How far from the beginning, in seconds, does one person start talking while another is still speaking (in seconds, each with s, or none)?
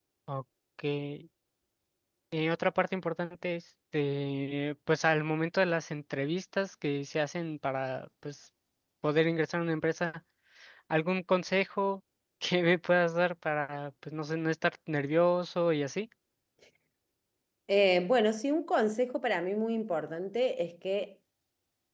none